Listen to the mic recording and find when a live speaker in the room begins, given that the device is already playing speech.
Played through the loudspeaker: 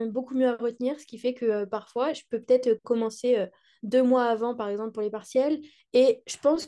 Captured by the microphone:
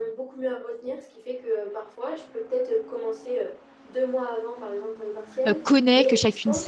5 s

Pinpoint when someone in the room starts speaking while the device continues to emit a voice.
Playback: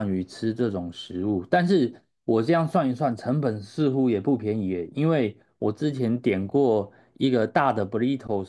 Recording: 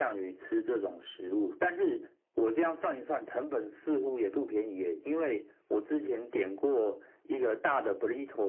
none

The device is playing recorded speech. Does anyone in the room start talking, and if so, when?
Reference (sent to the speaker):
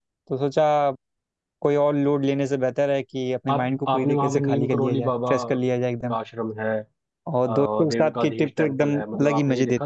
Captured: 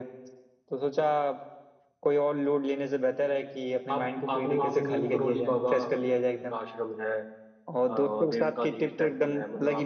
none

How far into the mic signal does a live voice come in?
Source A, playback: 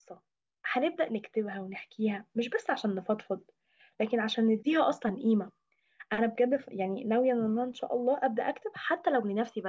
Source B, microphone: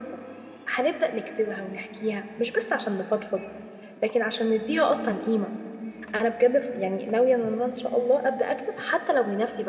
none

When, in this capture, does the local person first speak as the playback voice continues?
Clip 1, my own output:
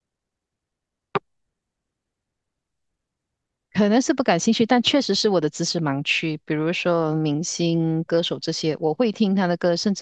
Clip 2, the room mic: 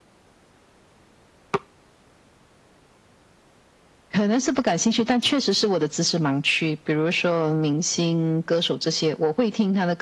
none

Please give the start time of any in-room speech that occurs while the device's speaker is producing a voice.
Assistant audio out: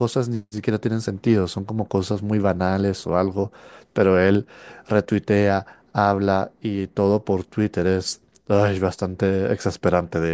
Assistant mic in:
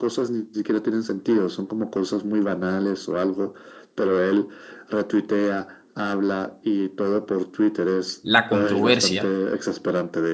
8 s

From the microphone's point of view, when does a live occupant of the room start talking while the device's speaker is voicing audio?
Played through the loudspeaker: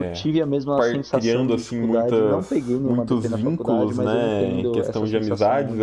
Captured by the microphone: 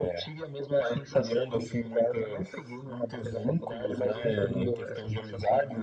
none

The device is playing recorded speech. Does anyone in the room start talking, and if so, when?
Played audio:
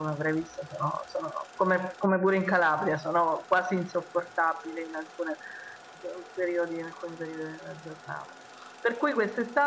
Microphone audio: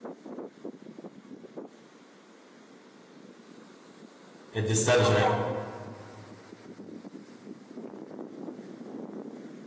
5 s

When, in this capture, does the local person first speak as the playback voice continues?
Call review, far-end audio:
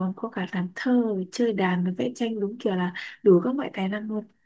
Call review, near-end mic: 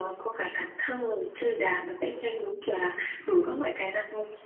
none

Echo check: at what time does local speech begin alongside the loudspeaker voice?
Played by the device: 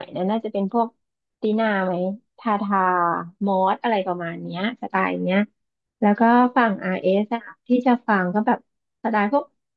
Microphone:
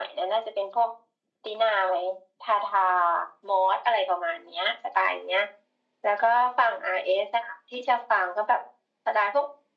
none

